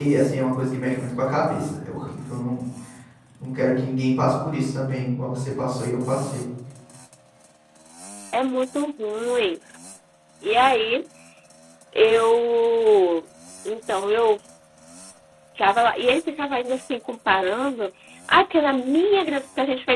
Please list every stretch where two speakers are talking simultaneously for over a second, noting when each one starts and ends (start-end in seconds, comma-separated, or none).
none